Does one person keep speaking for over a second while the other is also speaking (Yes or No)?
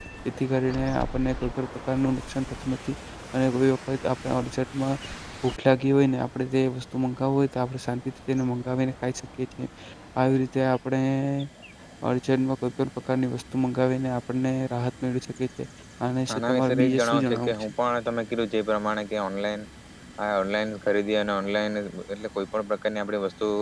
Yes